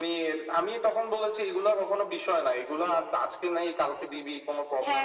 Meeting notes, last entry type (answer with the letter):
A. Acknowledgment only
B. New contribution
A